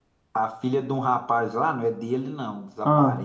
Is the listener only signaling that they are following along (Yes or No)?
Yes